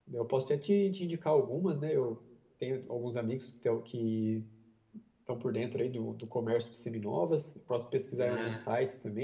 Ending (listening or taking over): listening